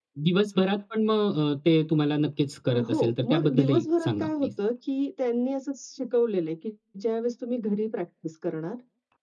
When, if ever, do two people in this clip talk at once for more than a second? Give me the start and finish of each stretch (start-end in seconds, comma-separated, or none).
2.9-4.5